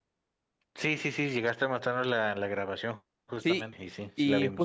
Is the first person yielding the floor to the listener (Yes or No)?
Yes